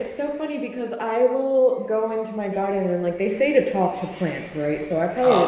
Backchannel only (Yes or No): Yes